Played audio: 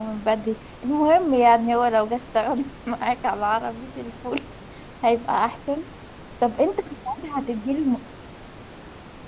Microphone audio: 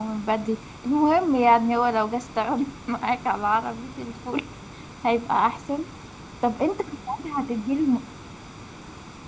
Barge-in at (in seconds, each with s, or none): none